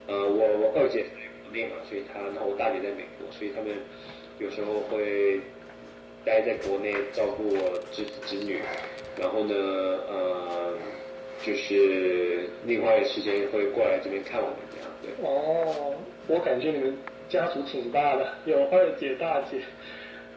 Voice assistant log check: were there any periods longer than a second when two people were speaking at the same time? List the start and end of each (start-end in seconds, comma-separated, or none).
none